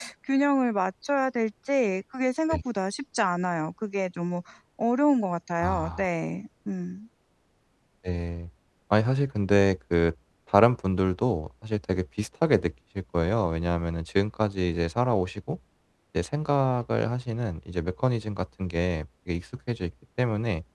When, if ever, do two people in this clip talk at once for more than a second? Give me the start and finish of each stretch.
none

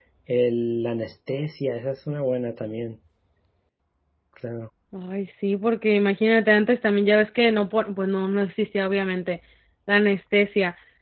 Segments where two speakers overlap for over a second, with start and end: none

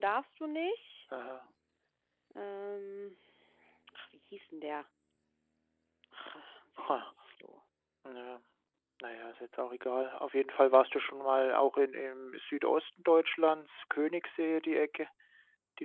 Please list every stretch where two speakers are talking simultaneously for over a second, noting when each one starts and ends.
none

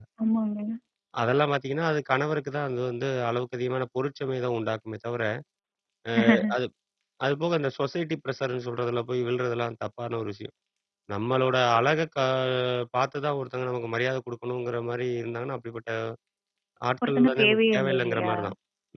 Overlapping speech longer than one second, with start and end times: 17.1-18.3

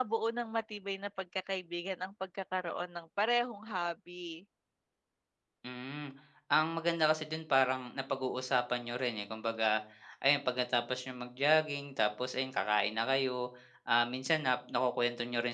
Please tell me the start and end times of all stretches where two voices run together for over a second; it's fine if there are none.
none

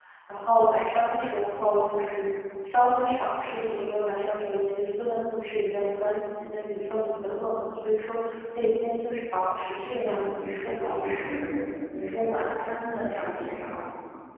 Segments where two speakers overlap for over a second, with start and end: 9.9-11.3

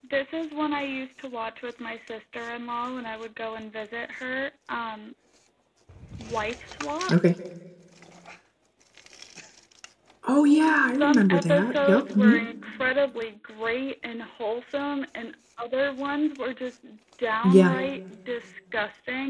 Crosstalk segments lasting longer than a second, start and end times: 10.8-12.4

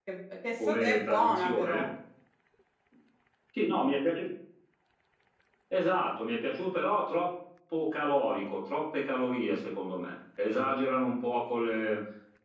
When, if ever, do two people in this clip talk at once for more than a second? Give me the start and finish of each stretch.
0.6-1.9

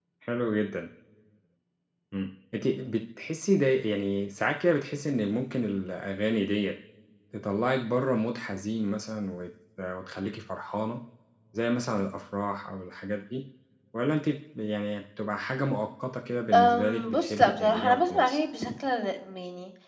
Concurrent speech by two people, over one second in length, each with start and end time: 16.5-18.4

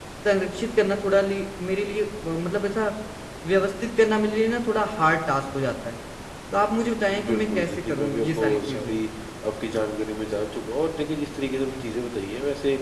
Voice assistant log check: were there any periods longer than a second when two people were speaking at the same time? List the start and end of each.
7.1-9.0

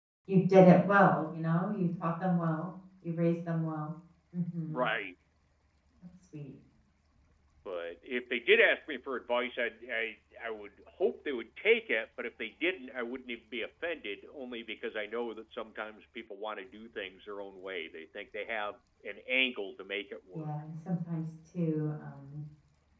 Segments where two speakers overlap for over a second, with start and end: none

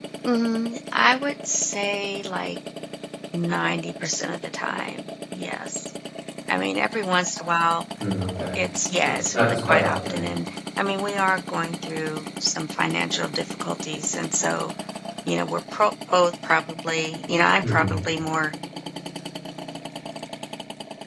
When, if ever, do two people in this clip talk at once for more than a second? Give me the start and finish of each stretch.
9.0-10.2

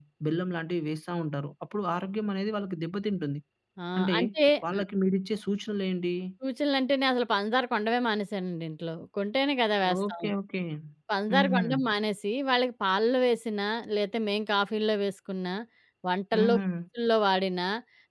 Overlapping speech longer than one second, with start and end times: none

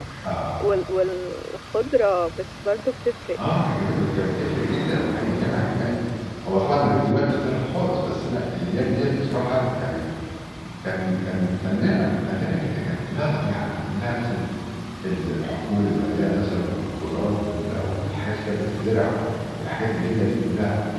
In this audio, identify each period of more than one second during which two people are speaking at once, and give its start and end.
none

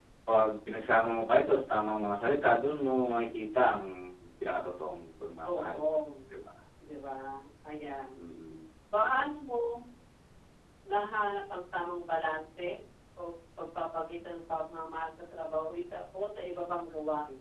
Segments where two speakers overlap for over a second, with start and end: none

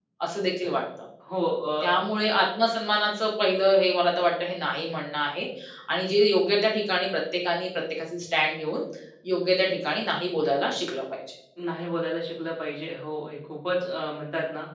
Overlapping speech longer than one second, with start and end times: none

